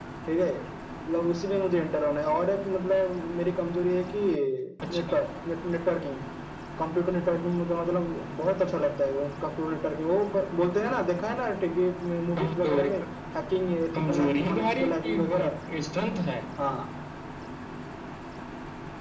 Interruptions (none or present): present